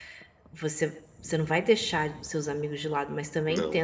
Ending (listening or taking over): listening